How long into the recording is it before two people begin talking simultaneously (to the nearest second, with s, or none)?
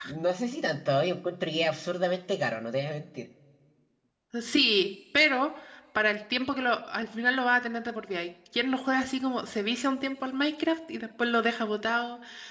none